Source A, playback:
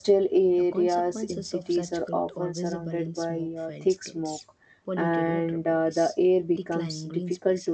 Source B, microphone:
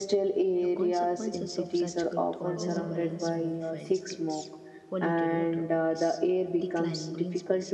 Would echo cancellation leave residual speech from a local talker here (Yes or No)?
Yes